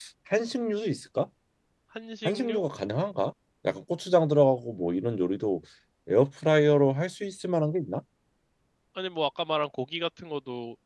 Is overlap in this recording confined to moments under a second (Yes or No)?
Yes